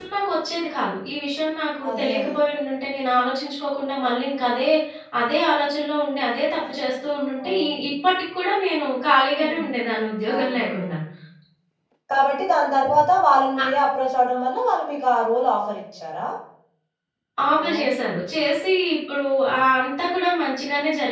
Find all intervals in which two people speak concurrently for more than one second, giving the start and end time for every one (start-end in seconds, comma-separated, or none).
none